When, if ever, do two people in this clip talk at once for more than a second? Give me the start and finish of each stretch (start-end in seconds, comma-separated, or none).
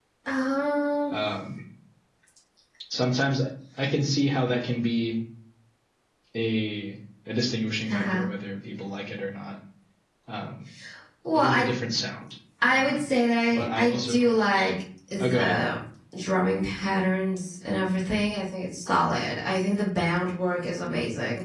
13.5-14.7